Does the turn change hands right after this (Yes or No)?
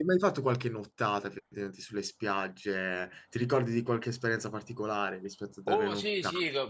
Yes